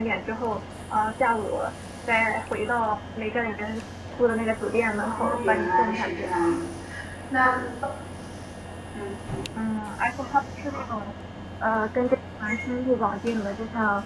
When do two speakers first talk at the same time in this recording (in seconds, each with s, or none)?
5.0 s